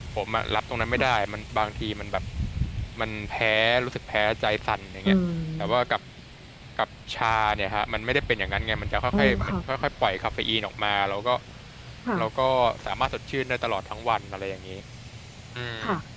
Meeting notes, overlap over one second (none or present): none